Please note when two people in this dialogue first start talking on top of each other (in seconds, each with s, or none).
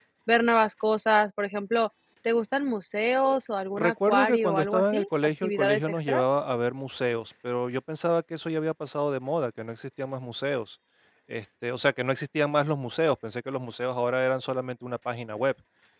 3.8 s